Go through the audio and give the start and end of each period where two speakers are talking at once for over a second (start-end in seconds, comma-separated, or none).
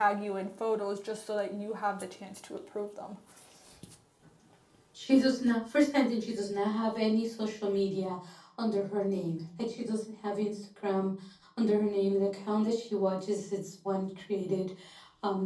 none